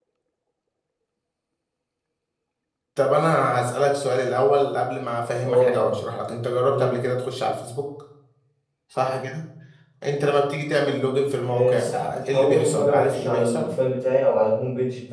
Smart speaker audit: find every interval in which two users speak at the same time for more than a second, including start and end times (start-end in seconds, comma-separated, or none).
11.5-13.8